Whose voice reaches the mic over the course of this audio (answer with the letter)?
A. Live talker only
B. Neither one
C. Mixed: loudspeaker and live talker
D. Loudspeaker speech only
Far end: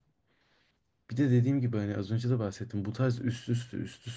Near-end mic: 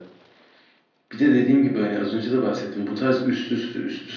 D